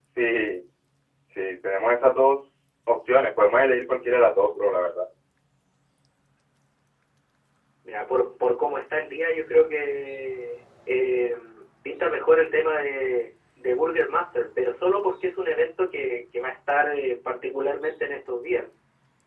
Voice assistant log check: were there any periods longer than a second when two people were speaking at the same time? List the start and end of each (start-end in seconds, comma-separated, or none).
none